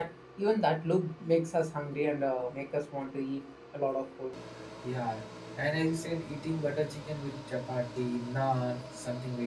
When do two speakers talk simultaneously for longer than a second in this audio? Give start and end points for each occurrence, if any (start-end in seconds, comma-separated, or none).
none